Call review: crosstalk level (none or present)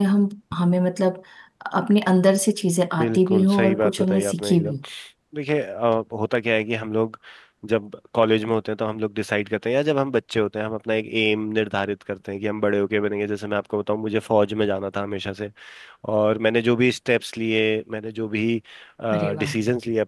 present